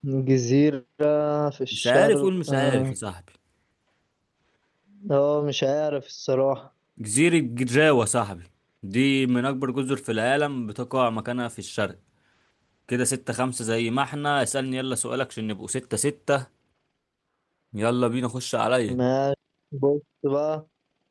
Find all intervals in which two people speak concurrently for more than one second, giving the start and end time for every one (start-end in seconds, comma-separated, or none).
1.7-2.9